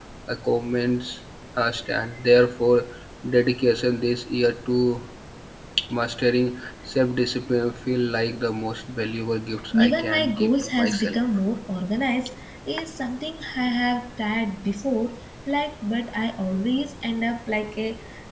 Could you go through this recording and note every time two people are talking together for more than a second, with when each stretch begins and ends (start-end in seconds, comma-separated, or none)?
9.8-11.2